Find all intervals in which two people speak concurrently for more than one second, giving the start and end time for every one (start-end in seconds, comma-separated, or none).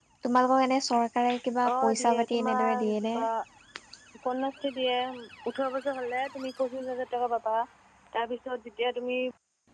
1.6-3.1